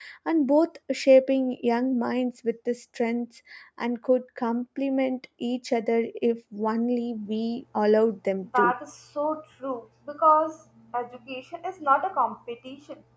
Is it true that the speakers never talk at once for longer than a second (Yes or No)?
Yes